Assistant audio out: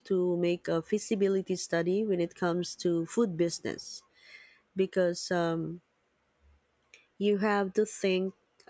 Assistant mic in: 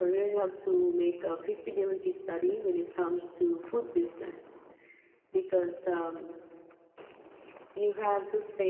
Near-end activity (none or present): none